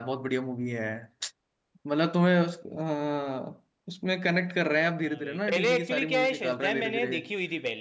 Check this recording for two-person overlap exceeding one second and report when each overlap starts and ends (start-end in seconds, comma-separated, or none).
5.0-7.3